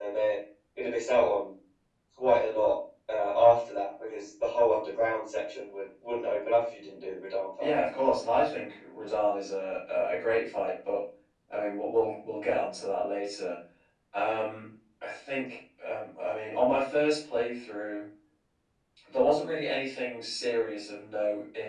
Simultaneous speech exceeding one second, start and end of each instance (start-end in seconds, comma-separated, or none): none